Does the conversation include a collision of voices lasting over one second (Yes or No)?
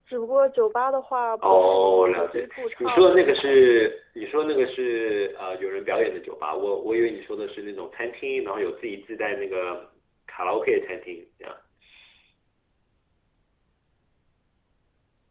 Yes